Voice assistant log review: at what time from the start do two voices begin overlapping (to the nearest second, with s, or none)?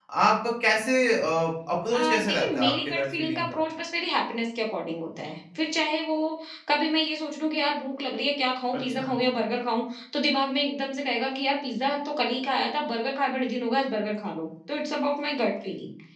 2 s